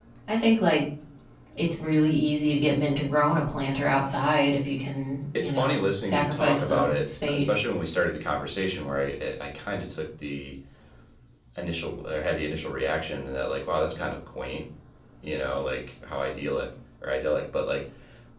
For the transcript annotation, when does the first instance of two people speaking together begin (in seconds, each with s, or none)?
5.4 s